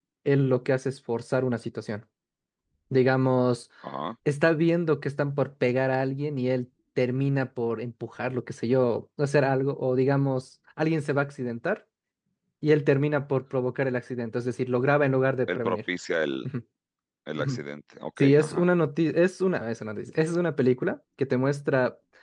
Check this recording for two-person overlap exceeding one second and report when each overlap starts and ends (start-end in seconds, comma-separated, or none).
none